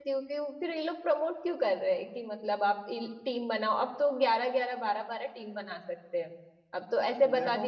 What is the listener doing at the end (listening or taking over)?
listening